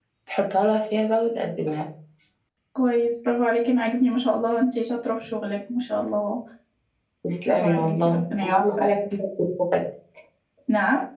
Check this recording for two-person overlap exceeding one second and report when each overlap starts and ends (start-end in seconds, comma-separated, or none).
7.5-9.0